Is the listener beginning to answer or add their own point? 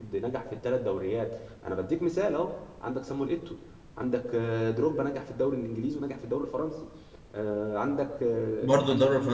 Yes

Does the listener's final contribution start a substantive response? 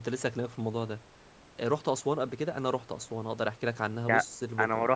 Yes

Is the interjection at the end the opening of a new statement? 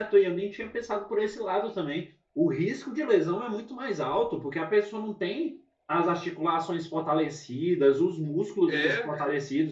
No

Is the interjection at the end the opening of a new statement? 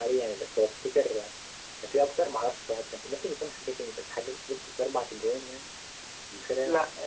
Yes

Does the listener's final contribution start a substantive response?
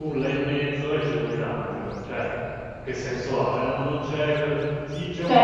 Yes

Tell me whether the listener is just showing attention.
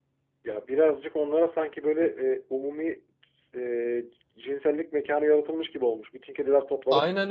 No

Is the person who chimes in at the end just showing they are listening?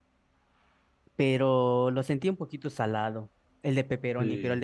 No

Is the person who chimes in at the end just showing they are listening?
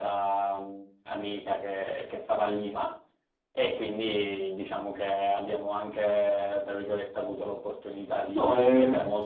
Yes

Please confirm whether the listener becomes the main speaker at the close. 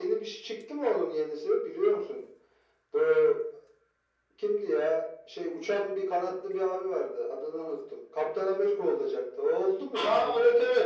Yes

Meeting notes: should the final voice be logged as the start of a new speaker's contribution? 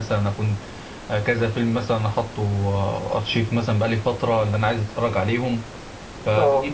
No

